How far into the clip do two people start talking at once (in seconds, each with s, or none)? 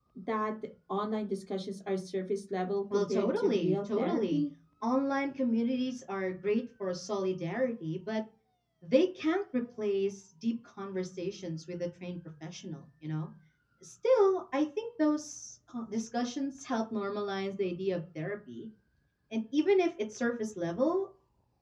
2.9 s